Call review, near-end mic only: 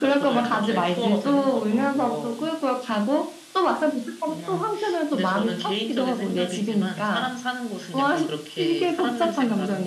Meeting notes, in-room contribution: none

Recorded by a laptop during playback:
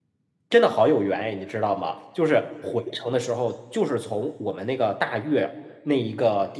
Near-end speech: present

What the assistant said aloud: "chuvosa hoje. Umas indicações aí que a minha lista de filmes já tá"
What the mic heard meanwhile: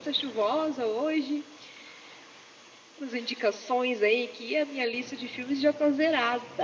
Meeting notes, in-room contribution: none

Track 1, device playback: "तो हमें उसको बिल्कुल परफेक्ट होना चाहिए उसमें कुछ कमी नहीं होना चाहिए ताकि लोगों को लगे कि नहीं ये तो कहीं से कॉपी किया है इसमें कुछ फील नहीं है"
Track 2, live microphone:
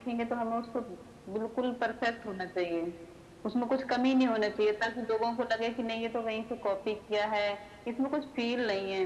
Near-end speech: none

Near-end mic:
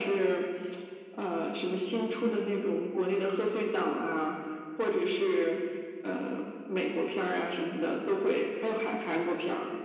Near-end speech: none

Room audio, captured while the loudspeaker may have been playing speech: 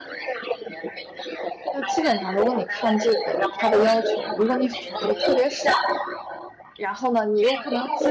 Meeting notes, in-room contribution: present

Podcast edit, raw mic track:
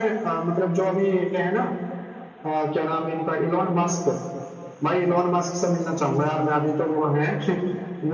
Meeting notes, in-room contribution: none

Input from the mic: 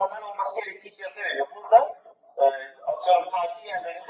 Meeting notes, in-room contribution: none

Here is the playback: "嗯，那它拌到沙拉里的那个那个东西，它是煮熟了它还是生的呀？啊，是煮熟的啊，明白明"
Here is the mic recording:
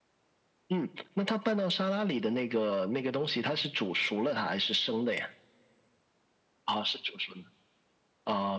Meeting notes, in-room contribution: none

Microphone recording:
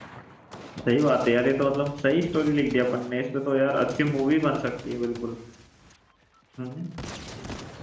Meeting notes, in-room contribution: present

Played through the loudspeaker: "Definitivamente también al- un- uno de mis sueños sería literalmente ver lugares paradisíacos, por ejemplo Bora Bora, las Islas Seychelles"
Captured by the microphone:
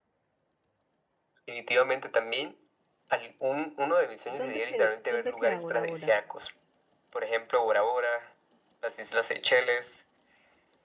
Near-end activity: present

